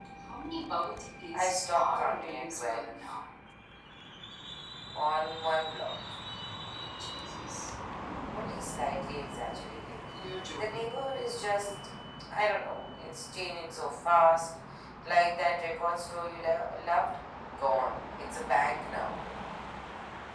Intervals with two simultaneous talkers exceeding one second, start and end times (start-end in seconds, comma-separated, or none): 1.3-3.0